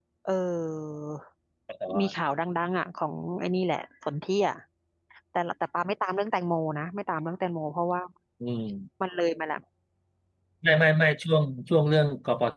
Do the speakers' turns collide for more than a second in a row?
No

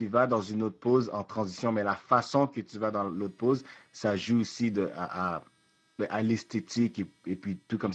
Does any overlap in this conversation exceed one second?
No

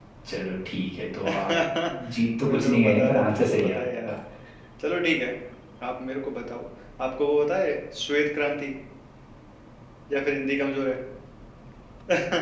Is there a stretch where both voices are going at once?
Yes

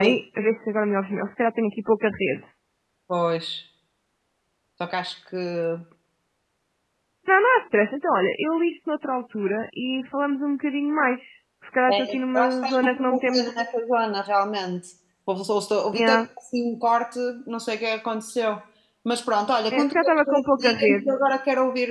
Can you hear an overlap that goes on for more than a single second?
Yes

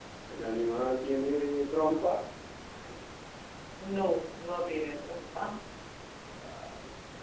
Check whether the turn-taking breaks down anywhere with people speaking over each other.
No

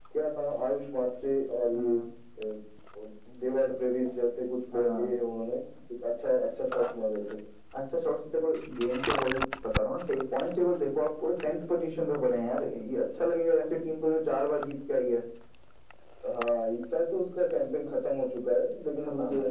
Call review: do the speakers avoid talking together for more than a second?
Yes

